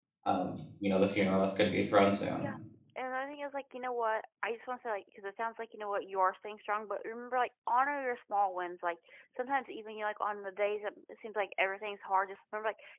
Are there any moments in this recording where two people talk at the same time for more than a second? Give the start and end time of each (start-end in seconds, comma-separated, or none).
none